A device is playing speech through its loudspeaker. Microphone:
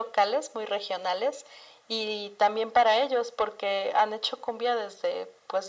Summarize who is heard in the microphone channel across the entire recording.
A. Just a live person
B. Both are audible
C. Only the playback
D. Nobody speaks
C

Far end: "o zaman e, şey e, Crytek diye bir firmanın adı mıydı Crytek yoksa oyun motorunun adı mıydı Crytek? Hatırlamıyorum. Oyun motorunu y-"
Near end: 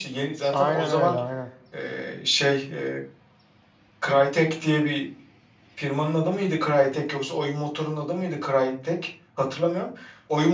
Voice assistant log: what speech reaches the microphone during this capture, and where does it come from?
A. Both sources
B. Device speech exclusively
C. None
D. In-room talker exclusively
A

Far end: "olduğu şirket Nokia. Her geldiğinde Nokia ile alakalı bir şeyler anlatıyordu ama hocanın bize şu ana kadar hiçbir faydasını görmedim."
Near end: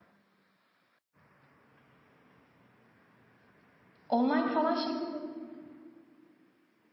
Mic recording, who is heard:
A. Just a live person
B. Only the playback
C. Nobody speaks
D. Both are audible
A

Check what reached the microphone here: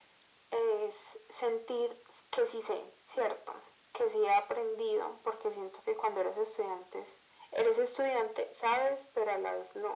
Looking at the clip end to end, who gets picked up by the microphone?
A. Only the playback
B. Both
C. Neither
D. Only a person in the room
A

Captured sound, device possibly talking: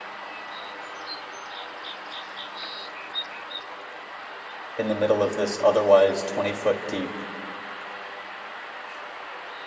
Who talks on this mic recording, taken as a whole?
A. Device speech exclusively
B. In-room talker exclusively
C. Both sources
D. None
B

